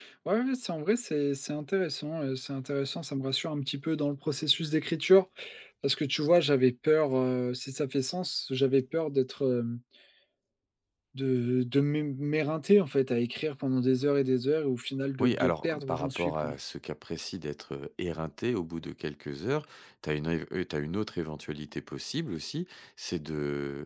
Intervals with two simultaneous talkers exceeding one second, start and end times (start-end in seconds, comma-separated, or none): 15.2-16.5